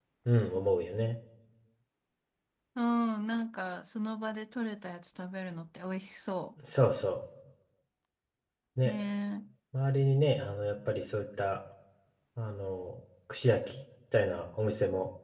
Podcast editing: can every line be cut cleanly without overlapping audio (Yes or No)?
Yes